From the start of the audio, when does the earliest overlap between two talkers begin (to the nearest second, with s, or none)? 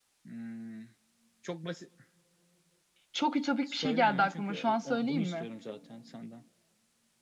4 s